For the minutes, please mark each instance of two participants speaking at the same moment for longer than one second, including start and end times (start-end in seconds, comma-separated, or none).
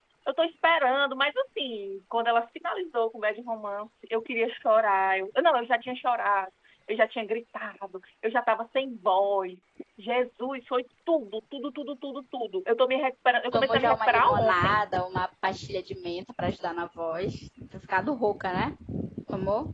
13.5-14.9